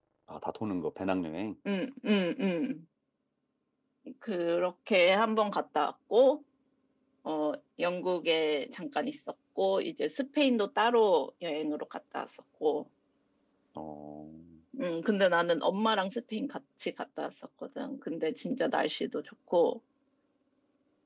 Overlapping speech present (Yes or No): No